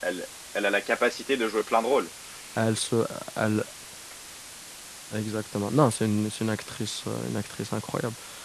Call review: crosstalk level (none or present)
none